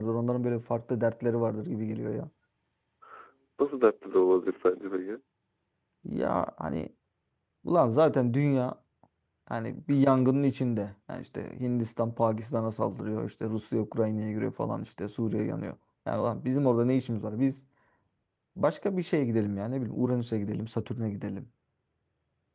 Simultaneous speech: No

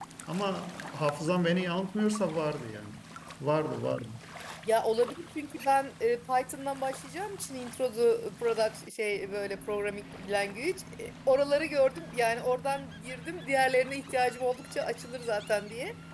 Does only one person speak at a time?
Yes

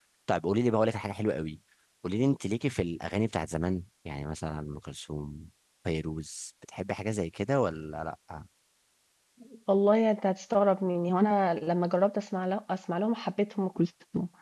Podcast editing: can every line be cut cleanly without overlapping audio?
Yes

